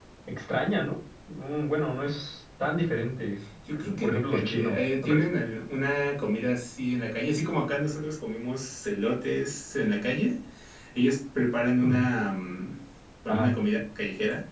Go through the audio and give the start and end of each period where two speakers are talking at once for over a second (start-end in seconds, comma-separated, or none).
3.7-5.2